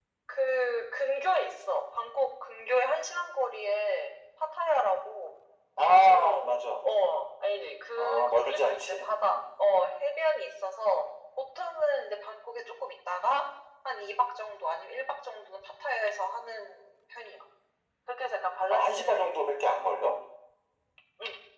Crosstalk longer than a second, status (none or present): present